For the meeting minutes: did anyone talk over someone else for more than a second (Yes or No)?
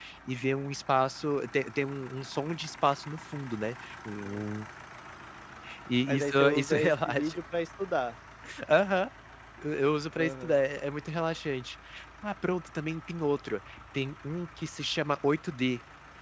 Yes